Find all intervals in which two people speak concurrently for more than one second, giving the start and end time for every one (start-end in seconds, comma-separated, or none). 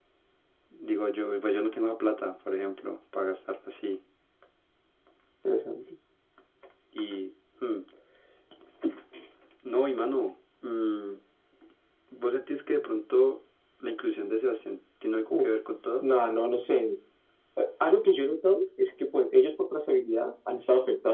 none